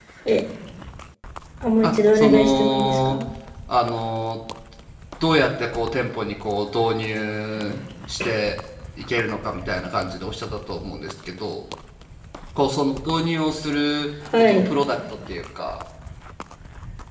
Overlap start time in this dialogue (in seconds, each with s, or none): 1.8 s